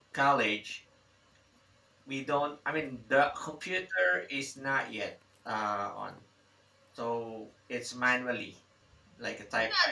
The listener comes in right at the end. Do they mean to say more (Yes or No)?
Yes